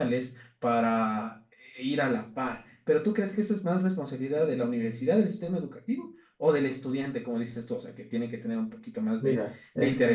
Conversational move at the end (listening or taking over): taking over